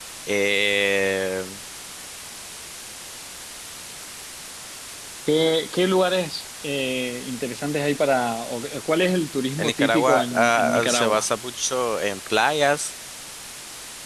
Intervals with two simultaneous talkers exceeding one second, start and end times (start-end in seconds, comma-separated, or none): 9.6-11.2